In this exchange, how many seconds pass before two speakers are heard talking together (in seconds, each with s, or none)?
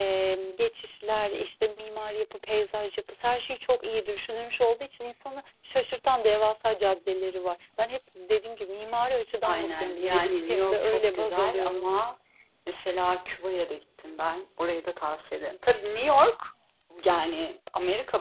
9.4 s